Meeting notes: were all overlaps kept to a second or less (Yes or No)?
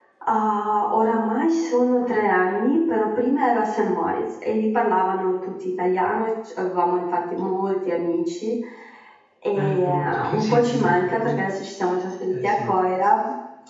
No